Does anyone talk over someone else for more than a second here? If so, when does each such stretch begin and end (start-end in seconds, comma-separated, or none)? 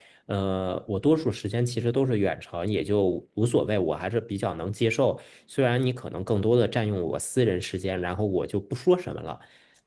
none